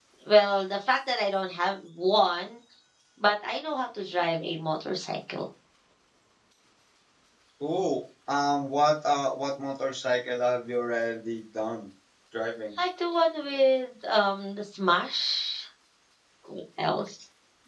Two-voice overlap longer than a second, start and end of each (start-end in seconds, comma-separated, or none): none